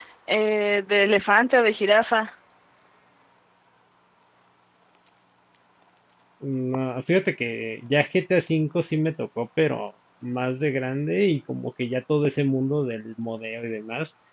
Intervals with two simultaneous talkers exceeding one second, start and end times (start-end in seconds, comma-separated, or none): none